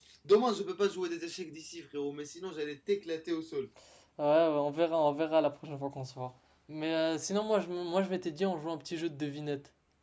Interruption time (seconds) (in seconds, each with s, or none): none